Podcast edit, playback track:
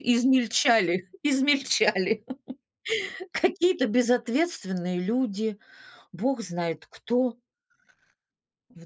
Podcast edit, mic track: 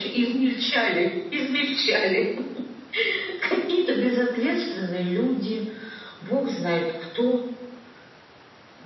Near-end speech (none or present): none